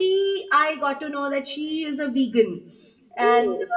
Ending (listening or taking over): listening